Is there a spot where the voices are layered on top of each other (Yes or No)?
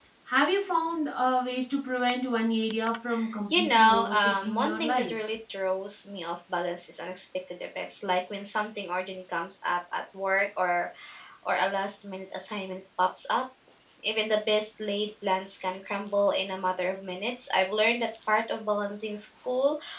Yes